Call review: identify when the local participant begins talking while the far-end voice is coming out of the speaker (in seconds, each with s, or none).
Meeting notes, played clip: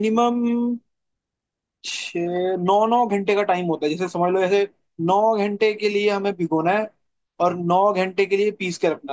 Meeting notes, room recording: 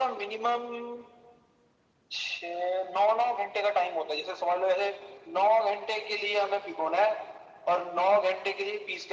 none